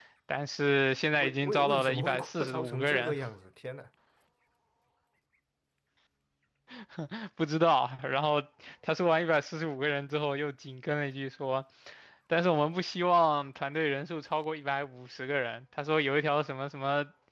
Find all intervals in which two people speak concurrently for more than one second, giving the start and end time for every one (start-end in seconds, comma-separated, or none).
1.2-3.1